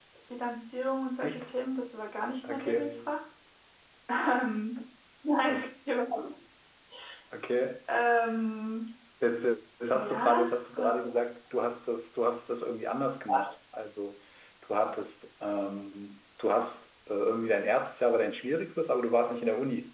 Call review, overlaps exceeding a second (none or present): present